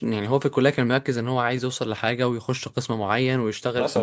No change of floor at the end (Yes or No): Yes